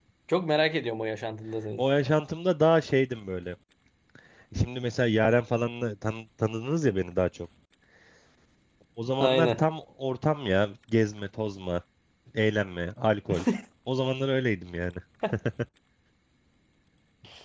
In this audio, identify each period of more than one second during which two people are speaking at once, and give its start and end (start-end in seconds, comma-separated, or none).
none